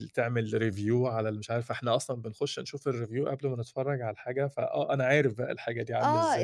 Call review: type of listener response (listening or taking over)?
taking over